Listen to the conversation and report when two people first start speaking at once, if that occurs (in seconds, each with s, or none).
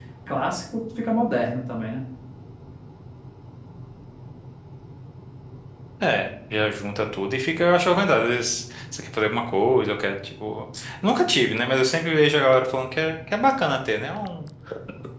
none